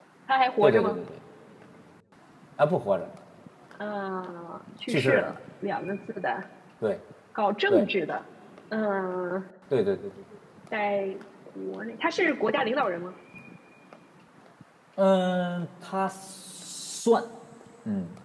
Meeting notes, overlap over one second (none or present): none